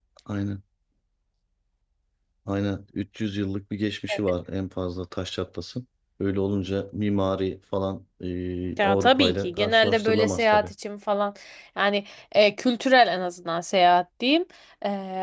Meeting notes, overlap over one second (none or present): present